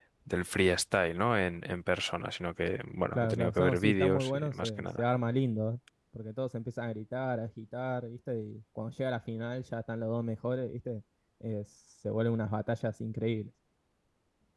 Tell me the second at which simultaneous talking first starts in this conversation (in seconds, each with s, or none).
3.2 s